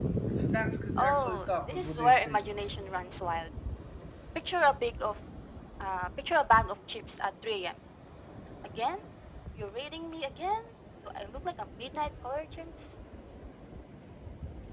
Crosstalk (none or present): present